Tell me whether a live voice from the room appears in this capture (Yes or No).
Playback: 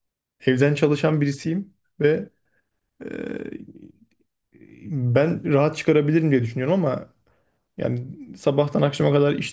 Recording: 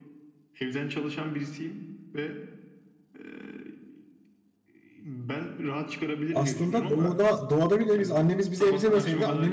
Yes